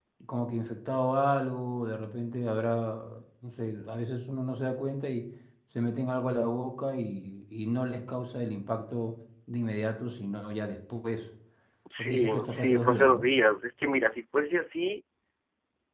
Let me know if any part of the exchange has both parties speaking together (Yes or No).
Yes